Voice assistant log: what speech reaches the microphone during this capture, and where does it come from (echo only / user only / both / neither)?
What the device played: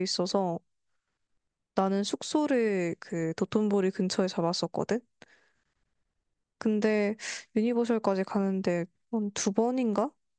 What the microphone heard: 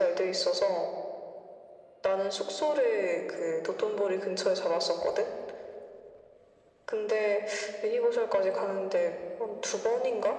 echo only